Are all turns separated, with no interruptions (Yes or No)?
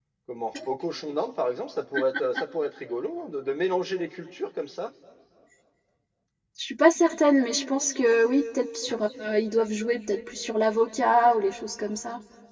Yes